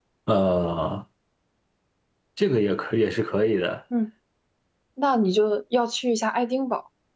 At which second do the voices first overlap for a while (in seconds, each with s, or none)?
none